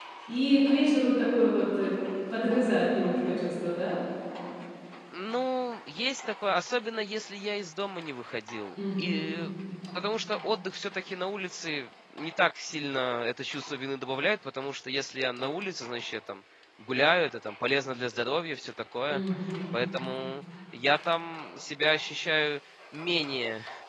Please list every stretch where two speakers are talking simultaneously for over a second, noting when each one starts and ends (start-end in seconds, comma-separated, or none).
none